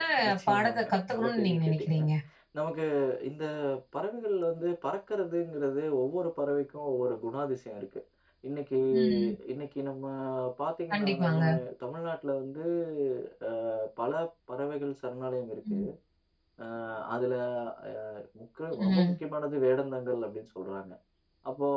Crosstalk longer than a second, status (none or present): present